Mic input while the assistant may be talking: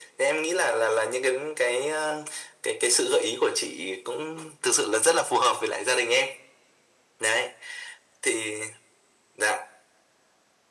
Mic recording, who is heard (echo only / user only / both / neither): echo only